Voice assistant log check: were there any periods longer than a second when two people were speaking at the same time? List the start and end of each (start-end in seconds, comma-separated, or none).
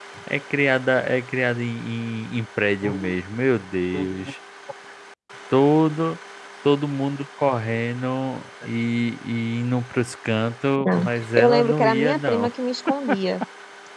10.8-12.5